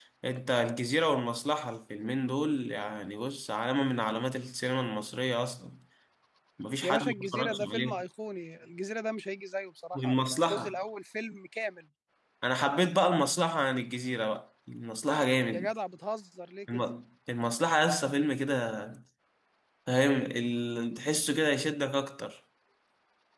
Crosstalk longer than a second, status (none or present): present